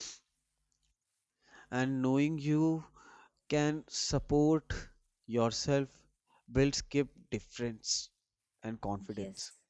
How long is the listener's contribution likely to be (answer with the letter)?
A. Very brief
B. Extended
B